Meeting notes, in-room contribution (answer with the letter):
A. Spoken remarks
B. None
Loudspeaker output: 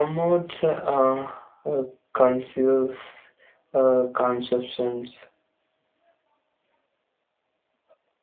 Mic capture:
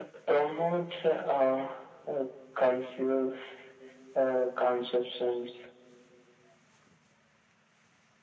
B